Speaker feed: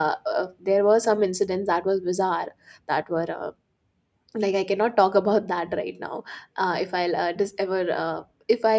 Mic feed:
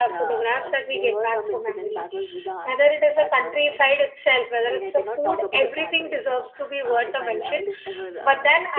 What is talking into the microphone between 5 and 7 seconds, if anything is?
both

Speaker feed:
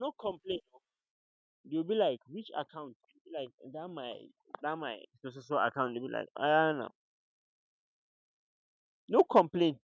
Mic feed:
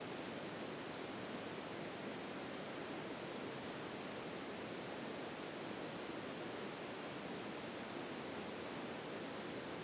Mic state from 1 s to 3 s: neither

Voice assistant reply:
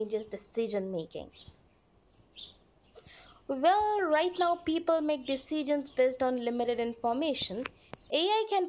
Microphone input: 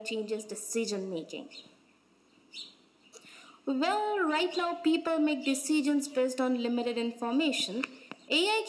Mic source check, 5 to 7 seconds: echo only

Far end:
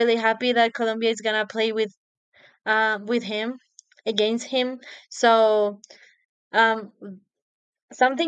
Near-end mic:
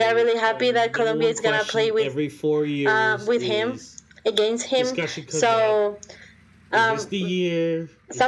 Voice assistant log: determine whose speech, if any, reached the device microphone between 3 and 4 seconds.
both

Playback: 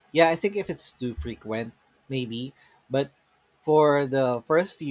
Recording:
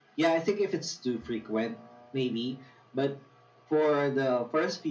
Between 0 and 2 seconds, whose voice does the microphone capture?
echo only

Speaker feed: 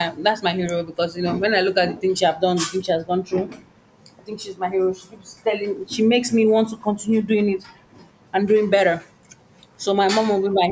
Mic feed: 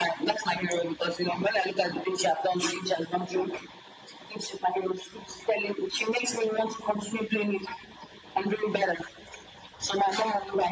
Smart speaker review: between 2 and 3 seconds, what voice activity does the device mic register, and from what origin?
echo only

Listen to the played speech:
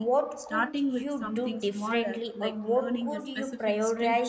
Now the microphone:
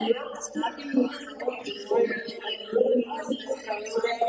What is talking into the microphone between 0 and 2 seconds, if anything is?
echo only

